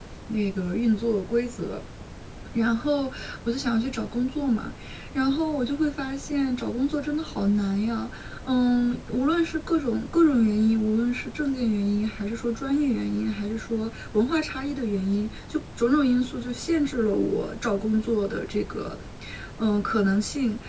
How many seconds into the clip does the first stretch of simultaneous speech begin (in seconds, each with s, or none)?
none